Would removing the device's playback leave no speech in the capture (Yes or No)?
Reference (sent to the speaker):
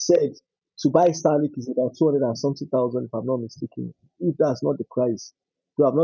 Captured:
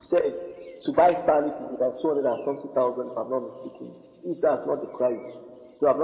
Yes